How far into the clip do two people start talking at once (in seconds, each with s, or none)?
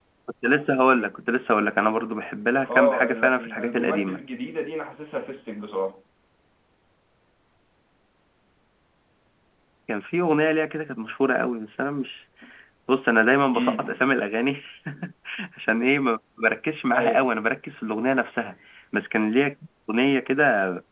2.7 s